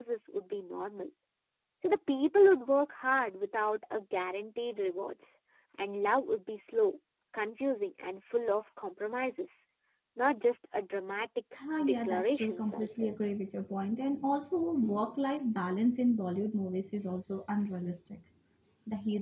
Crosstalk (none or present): present